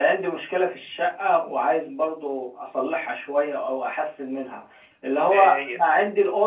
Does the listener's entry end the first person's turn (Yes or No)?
No